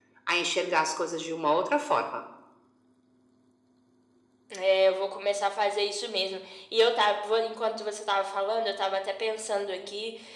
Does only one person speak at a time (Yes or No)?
Yes